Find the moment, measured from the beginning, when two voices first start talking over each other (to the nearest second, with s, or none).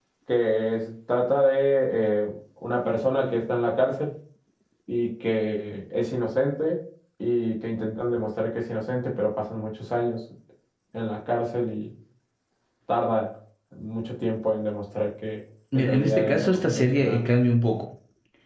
16 s